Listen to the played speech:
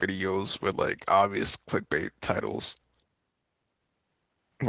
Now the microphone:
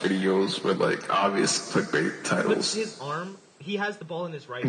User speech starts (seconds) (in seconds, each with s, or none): 2.4 s